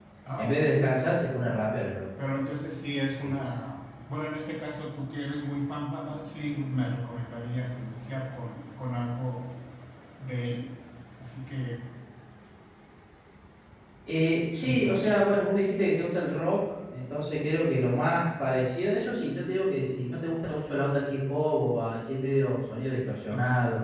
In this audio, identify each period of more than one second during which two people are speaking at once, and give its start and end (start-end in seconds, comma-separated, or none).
none